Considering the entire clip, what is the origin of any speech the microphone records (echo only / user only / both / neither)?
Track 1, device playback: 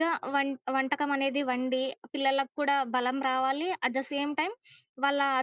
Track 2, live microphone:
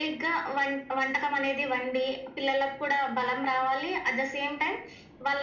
echo only